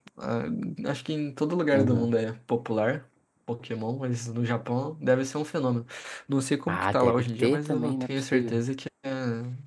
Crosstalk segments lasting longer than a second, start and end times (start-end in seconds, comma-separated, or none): 6.7-8.6